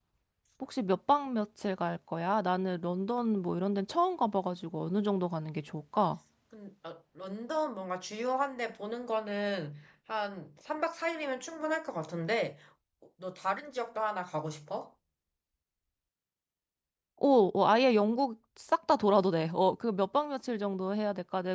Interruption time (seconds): none

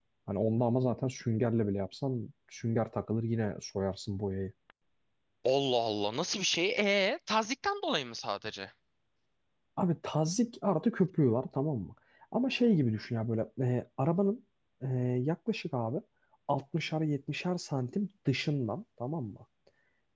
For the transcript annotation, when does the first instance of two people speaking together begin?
none

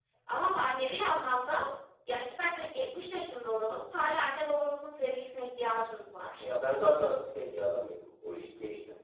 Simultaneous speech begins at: none

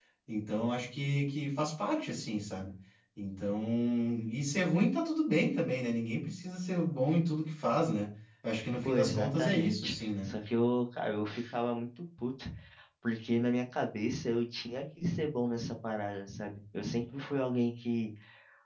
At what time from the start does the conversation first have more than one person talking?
8.8 s

